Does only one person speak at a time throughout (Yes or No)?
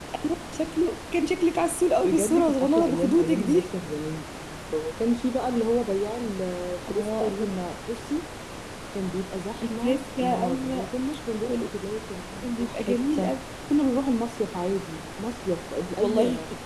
No